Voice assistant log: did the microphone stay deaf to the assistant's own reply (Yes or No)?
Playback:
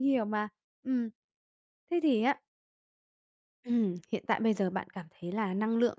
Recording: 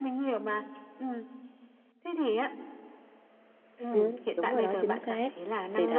No